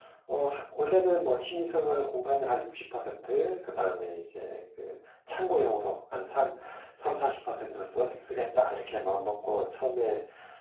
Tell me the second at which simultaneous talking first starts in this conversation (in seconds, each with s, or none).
none